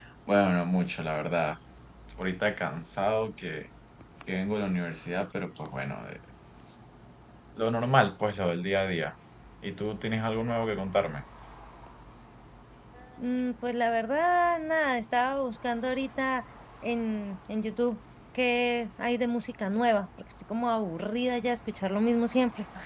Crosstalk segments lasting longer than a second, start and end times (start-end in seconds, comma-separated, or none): none